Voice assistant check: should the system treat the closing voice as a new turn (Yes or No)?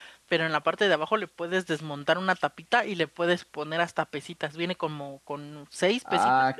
Yes